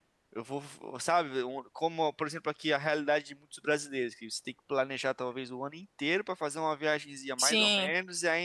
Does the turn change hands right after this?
No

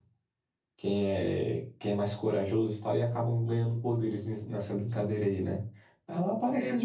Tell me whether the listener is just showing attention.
Yes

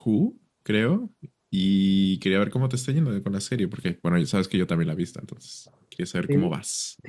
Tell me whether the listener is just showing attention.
No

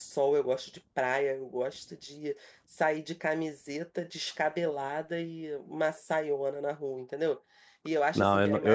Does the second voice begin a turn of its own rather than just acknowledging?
Yes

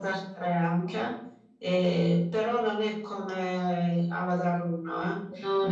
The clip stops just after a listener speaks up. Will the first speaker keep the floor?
Yes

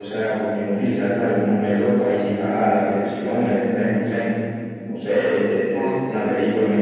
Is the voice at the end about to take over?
No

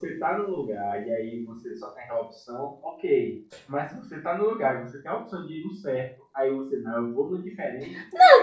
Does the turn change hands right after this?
Yes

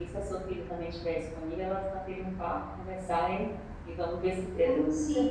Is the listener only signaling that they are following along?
No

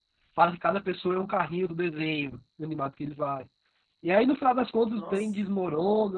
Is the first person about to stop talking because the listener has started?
No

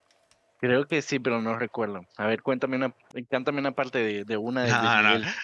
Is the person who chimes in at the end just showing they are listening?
No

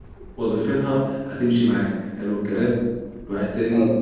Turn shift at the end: No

